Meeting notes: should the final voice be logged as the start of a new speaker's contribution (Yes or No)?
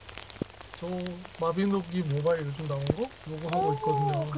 Yes